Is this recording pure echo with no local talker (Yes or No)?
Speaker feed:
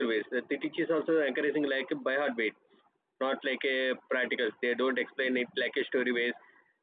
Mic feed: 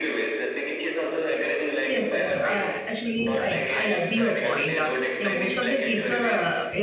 No